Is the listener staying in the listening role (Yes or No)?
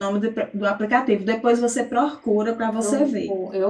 No